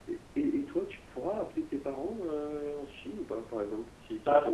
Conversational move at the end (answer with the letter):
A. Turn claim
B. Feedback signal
A